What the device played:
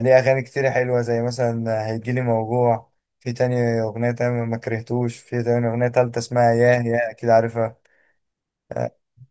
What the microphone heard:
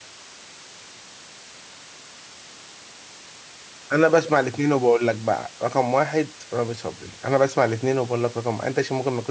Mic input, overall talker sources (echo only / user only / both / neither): user only